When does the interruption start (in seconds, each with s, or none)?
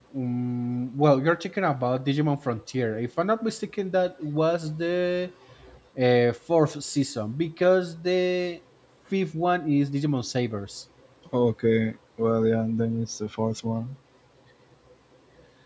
none